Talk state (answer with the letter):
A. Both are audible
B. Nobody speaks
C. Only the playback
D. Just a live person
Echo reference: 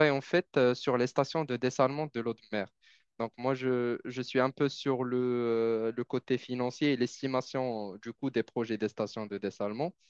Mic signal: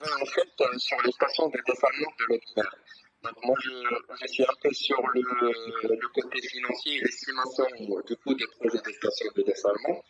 C